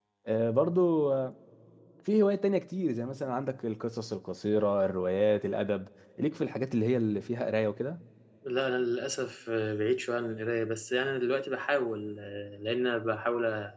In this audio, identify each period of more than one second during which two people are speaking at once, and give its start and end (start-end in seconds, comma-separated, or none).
none